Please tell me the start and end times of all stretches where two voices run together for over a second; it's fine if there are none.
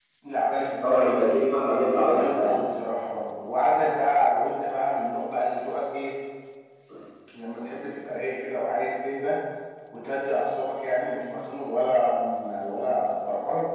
0.8-2.6

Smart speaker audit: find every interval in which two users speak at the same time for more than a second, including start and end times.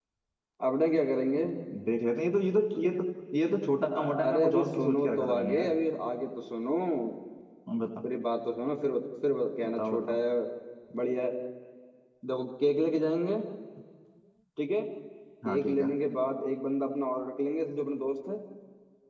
4.0-5.8

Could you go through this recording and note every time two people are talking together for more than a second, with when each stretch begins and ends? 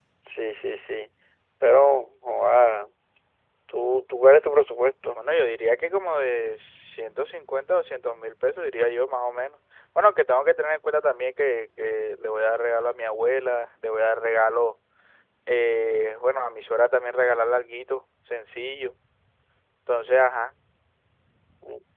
none

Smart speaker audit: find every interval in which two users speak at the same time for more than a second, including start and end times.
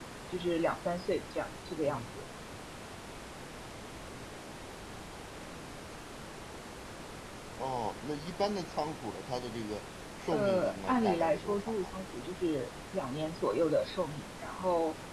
10.3-11.9

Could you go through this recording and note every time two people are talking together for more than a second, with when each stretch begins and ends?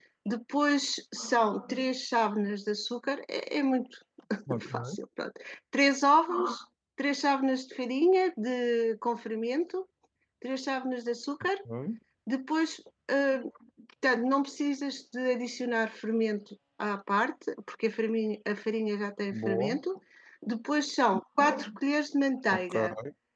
none

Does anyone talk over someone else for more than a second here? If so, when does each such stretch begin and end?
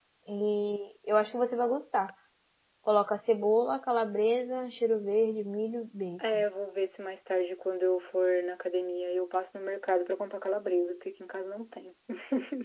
none

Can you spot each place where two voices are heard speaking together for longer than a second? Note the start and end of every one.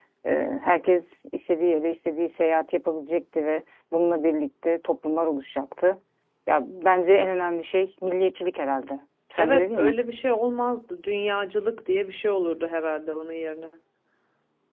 none

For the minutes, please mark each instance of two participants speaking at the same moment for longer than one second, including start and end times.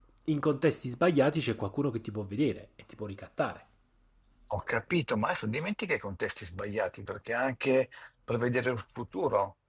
none

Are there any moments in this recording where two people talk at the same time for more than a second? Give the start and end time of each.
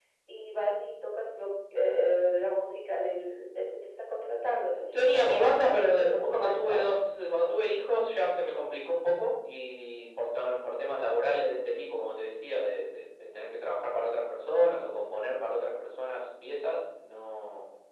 4.9-6.8

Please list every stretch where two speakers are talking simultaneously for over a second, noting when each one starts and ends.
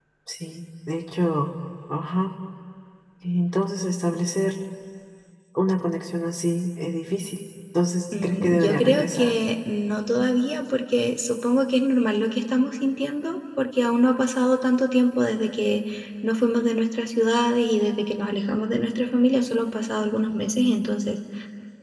8.1-9.4

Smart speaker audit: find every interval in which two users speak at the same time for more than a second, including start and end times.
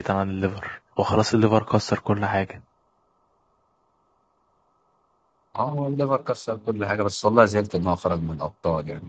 none

